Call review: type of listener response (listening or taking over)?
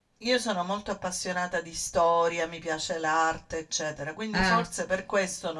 listening